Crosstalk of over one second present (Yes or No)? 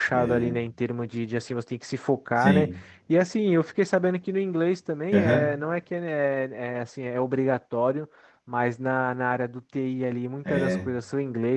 No